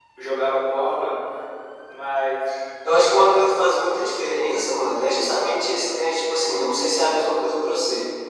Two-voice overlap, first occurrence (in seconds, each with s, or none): none